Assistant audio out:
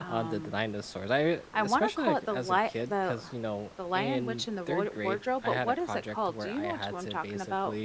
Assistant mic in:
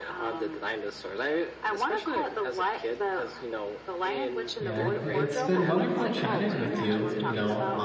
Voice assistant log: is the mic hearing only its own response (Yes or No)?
No